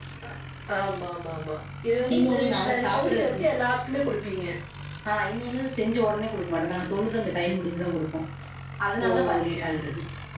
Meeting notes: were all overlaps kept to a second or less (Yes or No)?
No